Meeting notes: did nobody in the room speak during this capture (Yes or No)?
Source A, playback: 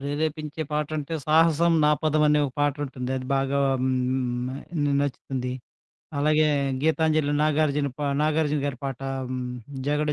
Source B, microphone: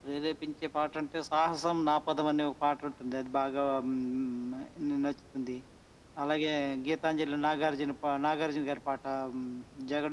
Yes